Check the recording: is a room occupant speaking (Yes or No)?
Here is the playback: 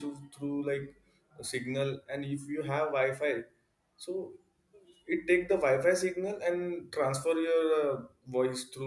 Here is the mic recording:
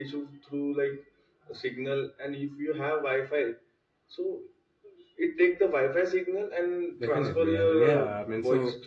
Yes